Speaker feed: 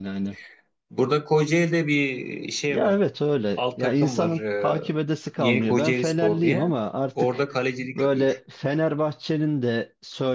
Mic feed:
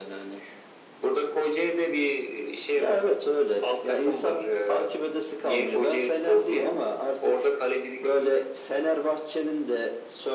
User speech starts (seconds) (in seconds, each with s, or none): none